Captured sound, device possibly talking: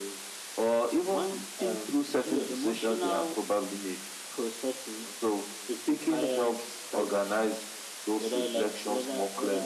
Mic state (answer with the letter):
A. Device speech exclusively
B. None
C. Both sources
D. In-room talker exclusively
A